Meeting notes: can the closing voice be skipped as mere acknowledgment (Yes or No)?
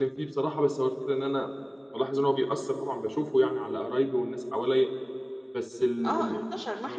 No